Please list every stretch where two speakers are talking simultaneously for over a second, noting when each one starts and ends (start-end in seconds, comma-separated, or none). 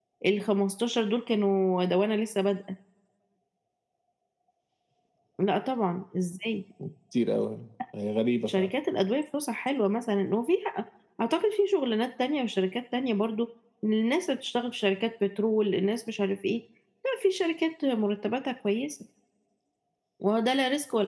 none